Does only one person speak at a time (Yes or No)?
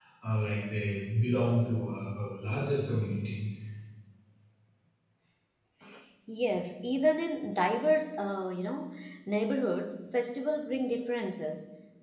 Yes